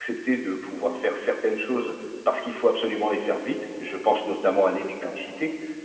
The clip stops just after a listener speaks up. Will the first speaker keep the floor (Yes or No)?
Yes